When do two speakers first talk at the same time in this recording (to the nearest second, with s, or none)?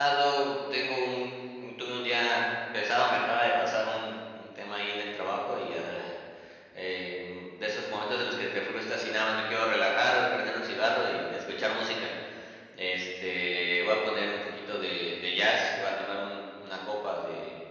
none